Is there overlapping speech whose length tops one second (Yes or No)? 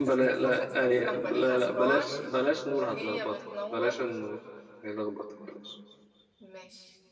Yes